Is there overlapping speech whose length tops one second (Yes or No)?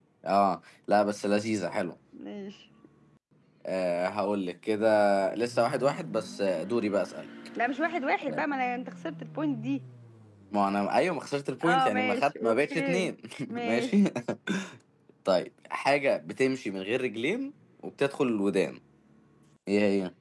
Yes